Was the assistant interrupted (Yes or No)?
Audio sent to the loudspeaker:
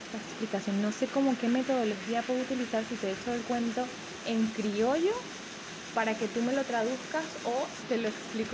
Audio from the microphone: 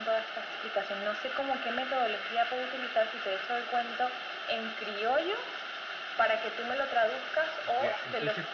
Yes